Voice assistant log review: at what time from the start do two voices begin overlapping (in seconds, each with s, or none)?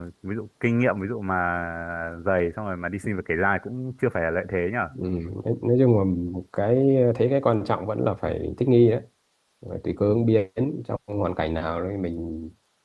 none